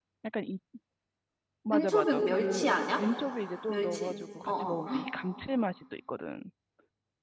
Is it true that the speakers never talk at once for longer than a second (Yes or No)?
No